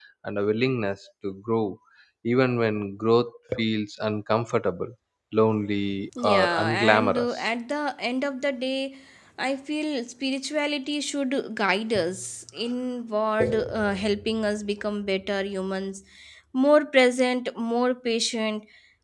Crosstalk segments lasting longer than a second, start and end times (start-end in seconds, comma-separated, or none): 6.2-7.5